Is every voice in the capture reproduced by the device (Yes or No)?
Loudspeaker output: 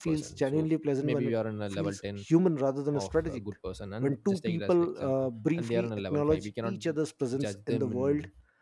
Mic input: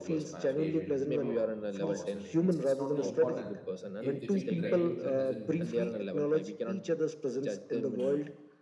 No